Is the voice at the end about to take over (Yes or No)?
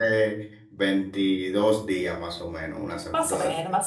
Yes